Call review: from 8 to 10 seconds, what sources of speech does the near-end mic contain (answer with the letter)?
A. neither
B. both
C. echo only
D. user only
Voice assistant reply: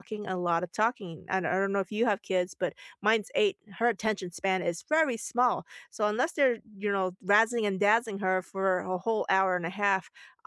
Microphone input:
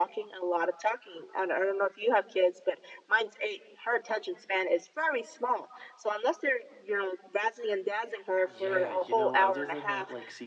B